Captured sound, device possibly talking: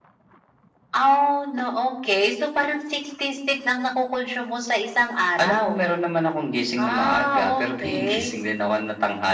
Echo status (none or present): present